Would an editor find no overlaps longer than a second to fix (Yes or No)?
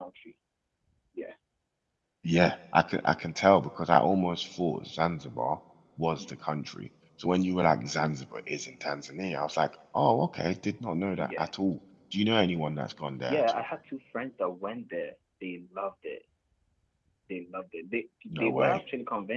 Yes